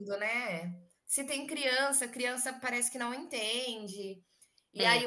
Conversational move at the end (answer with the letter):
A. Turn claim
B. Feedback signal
B